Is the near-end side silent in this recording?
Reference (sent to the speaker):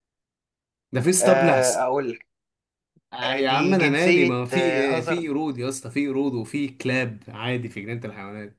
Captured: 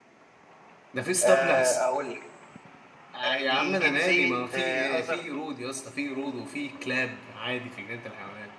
Yes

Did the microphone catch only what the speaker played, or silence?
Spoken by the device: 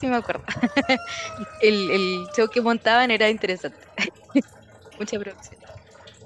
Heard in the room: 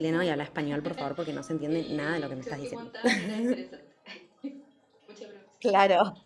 No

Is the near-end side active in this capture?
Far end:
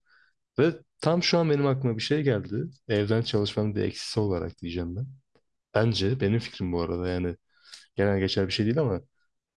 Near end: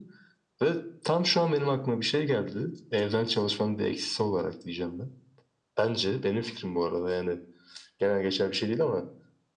No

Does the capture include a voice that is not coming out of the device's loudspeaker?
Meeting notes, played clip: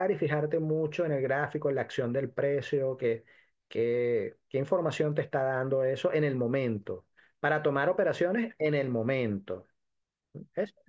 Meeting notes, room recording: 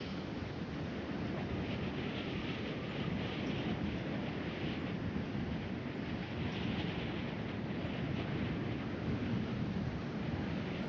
No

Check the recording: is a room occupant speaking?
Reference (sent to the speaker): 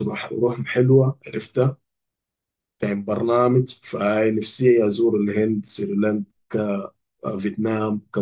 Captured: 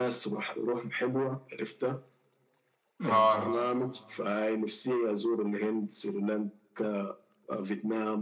Yes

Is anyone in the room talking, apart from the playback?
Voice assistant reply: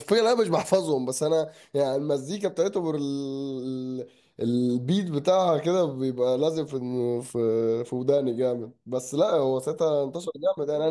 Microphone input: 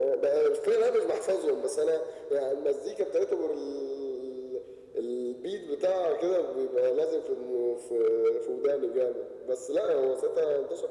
No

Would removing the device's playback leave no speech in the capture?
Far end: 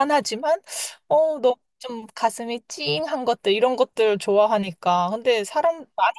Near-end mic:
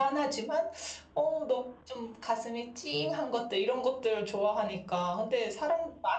Yes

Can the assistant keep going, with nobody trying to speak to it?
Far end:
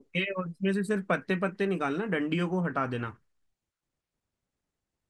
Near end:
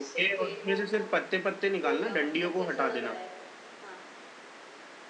No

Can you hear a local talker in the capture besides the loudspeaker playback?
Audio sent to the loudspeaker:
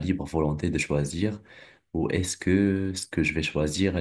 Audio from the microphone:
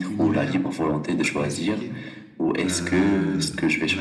Yes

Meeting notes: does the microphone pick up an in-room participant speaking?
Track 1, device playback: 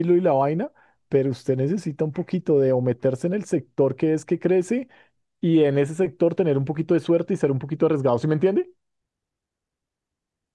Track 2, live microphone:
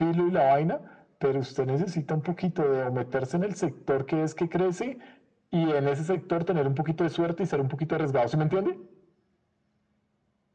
No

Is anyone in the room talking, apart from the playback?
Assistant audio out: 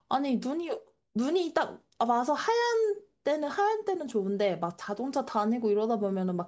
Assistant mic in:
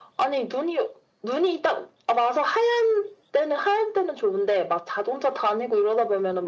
No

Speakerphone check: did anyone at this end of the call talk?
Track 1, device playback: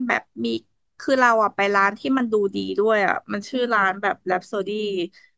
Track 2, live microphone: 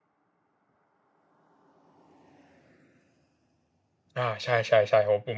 Yes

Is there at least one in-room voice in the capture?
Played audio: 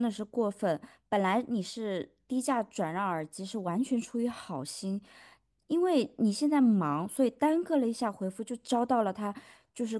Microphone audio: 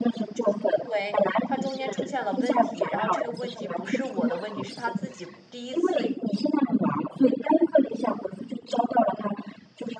Yes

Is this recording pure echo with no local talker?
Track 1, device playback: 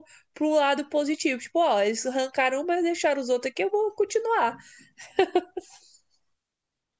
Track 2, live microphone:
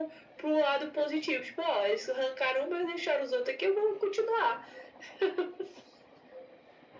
Yes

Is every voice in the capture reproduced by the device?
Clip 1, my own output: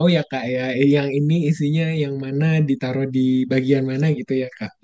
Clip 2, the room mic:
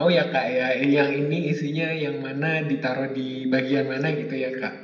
Yes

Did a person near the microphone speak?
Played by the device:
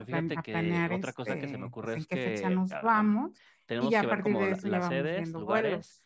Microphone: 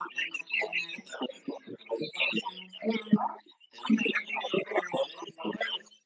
No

